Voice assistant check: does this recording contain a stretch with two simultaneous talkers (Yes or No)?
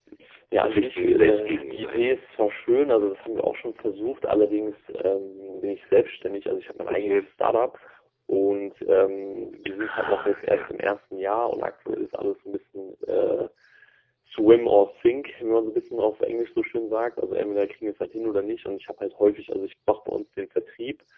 Yes